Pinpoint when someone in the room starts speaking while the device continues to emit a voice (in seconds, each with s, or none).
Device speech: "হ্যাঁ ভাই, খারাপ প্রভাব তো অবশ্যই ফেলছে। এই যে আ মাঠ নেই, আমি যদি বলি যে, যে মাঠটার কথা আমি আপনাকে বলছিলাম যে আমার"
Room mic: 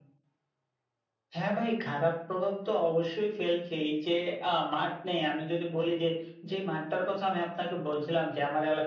none